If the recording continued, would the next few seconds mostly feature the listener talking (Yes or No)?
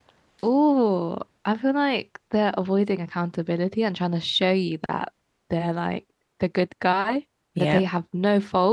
No